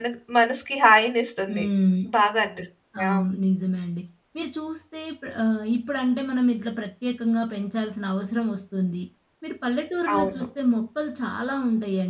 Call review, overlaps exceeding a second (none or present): none